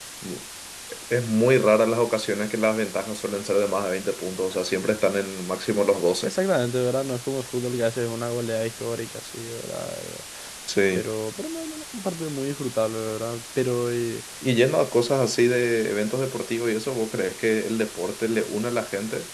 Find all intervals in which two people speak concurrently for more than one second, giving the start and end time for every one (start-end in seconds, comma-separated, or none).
none